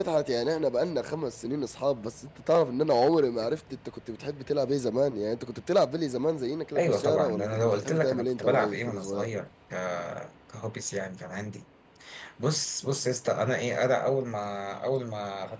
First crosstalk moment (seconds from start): 7 s

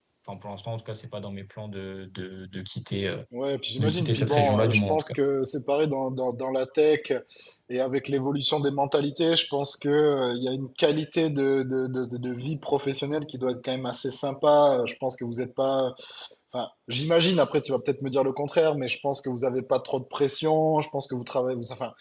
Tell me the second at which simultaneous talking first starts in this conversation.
4 s

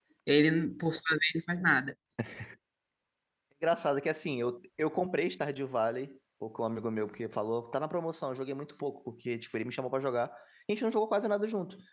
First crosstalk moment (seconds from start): none

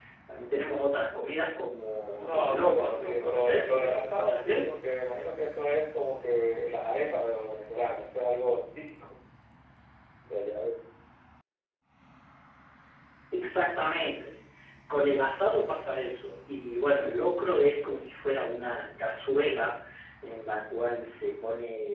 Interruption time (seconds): 2 s

